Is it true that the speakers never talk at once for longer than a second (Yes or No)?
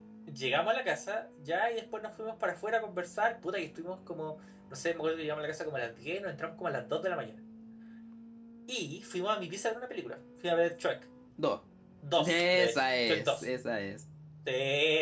No